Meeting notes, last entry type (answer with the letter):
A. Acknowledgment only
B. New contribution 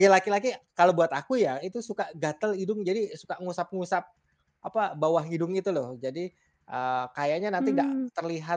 A